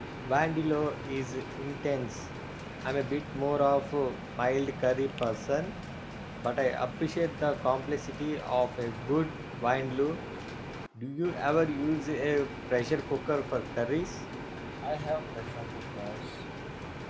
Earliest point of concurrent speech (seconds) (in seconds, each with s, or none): none